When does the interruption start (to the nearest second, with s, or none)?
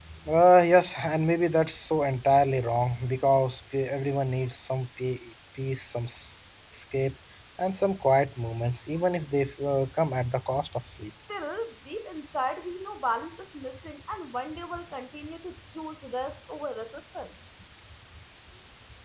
none